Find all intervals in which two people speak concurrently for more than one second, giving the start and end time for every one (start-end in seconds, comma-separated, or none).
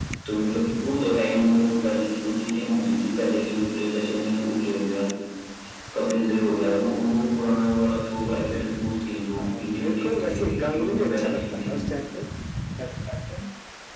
9.4-11.8